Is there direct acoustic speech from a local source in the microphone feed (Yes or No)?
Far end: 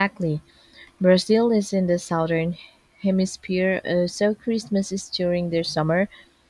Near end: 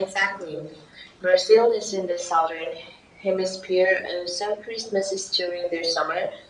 No